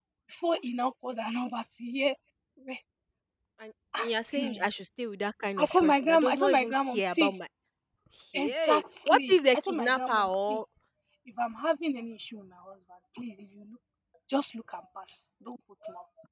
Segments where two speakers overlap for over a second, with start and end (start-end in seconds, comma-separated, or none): 5.6-7.3, 8.3-10.6